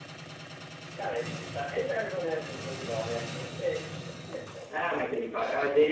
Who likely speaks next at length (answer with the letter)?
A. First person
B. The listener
B